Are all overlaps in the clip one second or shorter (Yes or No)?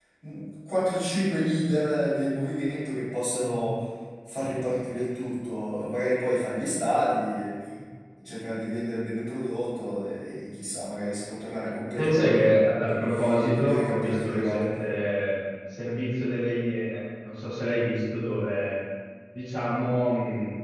No